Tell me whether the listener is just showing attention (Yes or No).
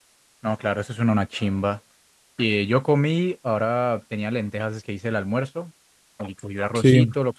Yes